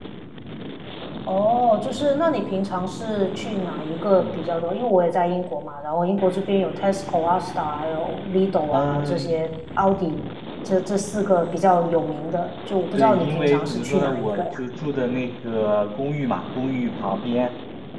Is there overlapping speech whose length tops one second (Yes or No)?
Yes